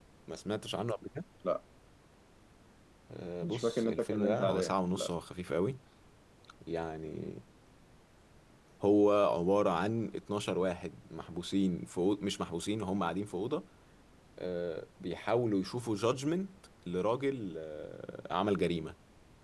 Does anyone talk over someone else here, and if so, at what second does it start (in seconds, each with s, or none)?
3.4 s